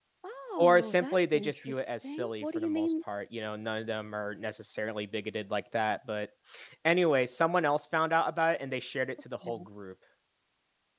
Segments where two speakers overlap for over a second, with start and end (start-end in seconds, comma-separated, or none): 0.6-2.9